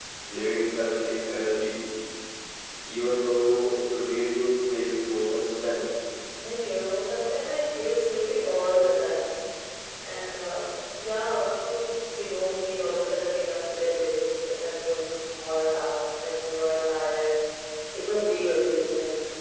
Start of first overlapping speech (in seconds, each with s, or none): none